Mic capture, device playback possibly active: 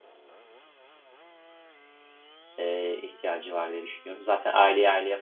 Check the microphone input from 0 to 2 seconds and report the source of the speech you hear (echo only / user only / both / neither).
neither